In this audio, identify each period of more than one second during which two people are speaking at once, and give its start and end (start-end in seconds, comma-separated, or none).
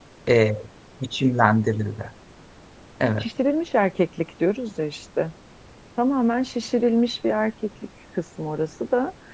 none